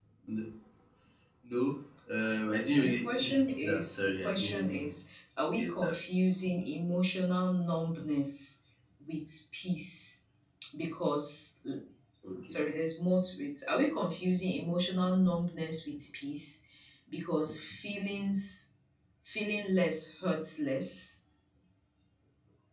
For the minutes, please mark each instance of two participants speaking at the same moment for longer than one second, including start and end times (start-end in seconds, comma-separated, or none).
2.6-4.9